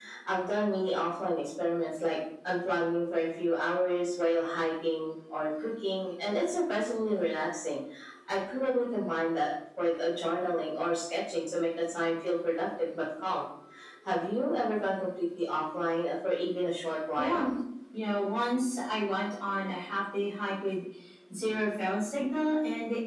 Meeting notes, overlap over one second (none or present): none